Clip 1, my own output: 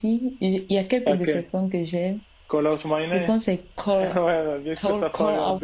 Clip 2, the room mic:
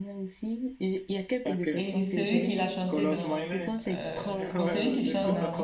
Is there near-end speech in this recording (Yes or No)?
Yes